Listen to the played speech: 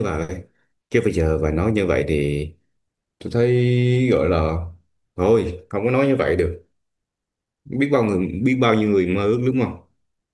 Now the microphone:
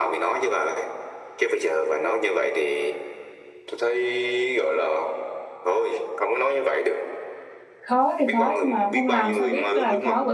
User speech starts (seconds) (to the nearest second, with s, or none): 8 s